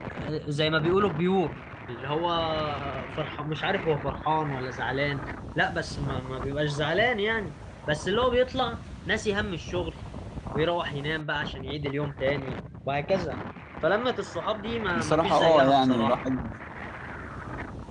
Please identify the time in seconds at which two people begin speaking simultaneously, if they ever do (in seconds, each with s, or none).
14.9 s